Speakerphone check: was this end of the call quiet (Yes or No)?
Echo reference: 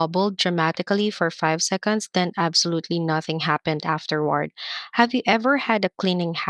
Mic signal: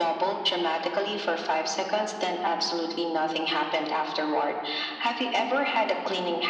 Yes